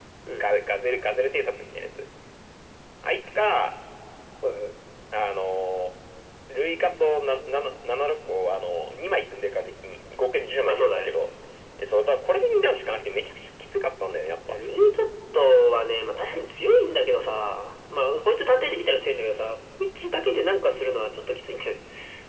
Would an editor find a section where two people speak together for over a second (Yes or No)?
No